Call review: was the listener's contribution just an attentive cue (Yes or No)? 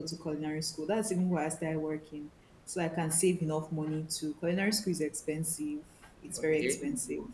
Yes